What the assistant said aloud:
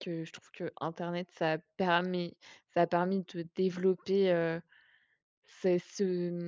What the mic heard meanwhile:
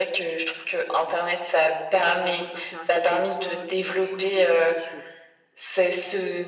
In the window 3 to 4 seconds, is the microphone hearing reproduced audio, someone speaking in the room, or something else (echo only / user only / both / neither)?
both